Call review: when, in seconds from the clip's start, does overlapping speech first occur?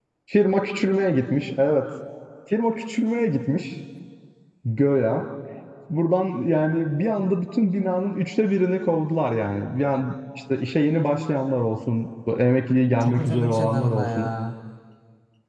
12.9 s

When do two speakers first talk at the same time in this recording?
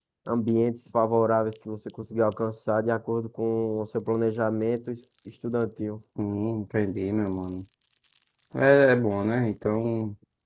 none

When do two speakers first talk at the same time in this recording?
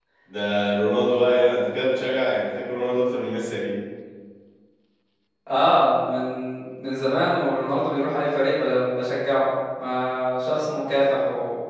none

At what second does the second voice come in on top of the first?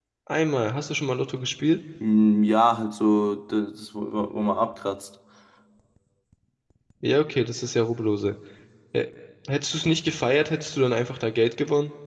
none

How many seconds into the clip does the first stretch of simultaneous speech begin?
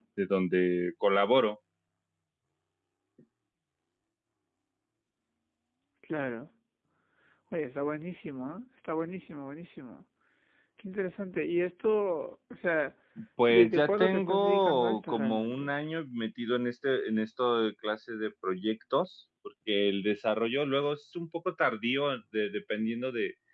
13.5 s

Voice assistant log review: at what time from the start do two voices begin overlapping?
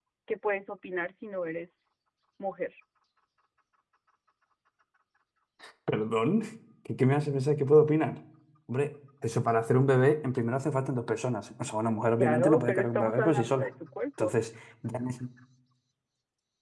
12.2 s

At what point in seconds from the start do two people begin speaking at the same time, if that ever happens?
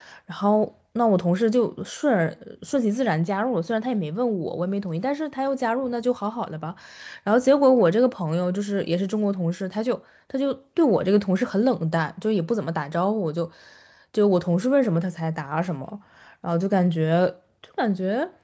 none

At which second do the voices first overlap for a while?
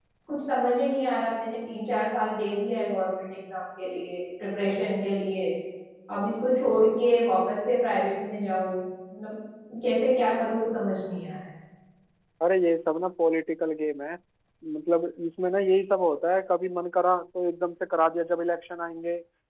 none

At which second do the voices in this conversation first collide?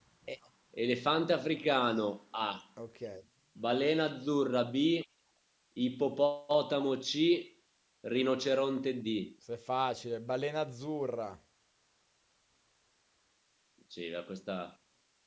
none

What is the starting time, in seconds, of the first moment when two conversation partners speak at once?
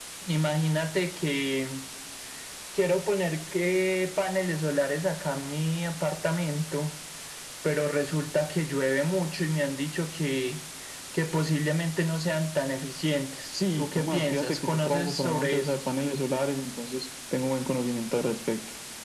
13.8 s

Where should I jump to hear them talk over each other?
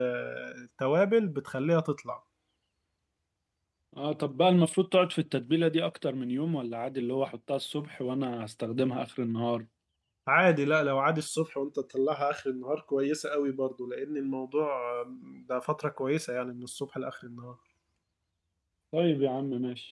none

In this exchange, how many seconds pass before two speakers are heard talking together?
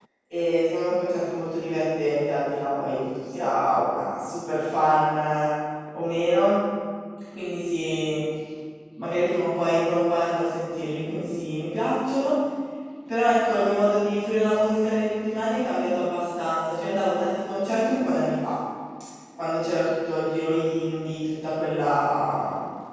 none

